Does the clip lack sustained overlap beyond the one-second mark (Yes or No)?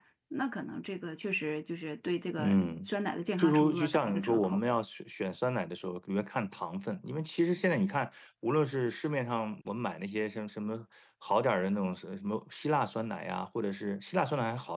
No